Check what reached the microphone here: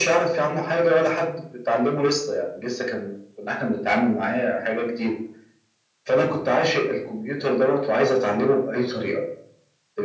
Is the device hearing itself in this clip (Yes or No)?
Yes